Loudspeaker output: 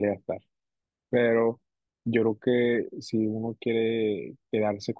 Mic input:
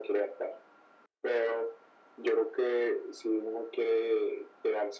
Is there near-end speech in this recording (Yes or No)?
No